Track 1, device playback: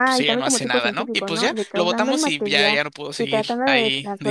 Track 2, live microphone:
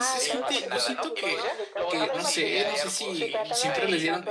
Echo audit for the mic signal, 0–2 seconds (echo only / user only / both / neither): both